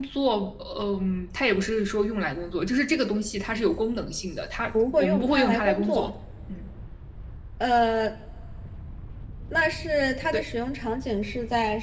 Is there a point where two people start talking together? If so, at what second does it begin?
4.7 s

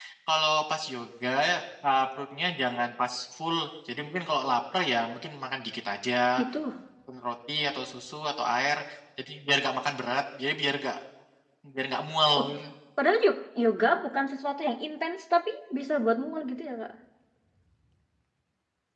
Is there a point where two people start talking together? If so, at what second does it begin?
none

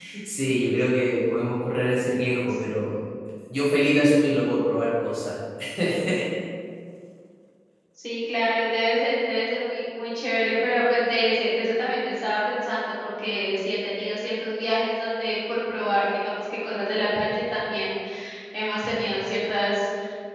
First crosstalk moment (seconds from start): none

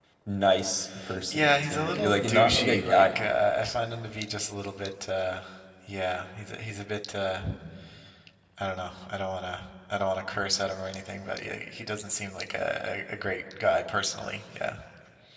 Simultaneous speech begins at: 1.3 s

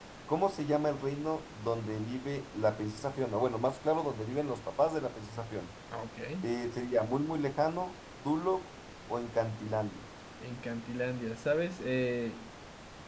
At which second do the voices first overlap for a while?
none

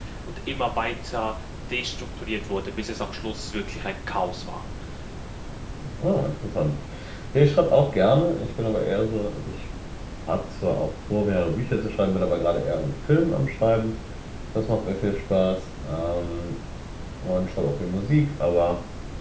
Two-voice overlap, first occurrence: none

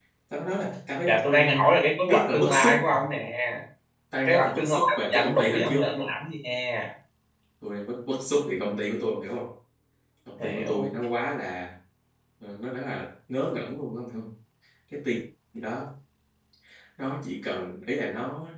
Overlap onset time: 1.1 s

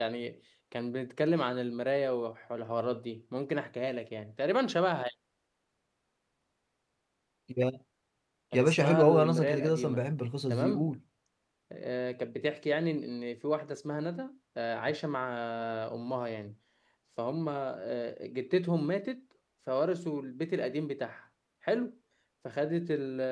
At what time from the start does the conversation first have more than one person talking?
8.5 s

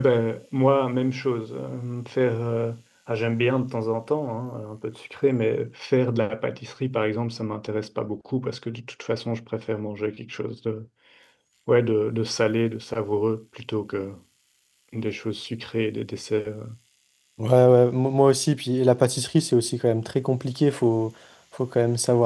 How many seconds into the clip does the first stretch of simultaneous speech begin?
none

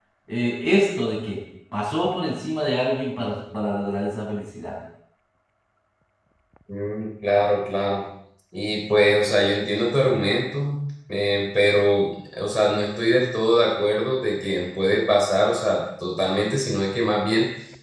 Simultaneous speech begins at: none

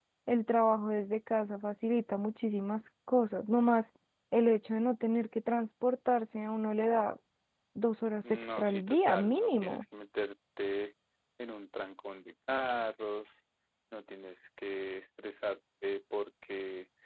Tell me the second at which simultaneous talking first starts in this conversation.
8.3 s

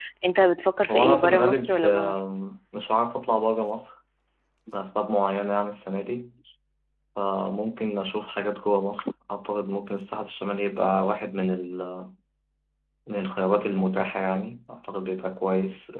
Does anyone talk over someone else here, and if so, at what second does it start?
0.9 s

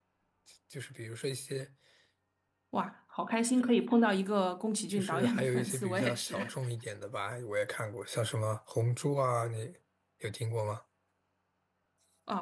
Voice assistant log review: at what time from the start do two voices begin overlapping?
4.9 s

